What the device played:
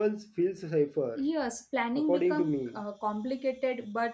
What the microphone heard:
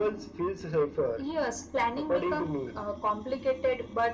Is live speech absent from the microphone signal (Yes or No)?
Yes